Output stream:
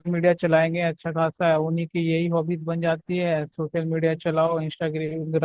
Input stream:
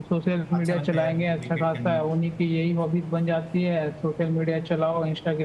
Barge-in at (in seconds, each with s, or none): 0.5 s